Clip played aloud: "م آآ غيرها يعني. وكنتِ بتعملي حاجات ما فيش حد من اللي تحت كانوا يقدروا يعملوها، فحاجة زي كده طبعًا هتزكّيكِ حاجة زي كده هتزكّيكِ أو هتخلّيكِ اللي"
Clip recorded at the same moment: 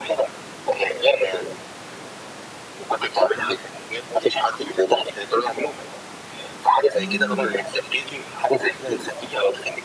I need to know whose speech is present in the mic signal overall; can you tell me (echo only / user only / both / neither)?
both